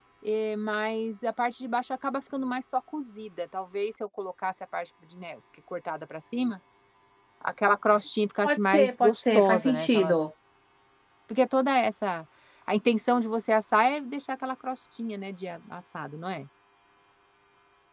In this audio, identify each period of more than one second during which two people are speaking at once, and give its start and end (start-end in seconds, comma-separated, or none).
8.4-10.2